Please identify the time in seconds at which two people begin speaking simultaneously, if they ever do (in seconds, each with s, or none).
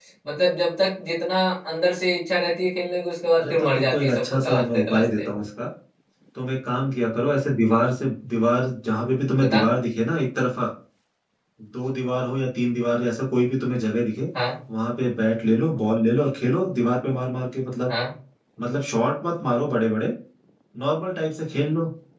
3.4 s